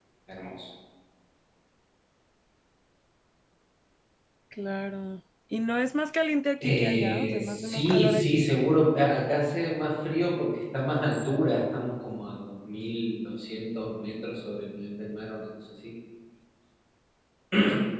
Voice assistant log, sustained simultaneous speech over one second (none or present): present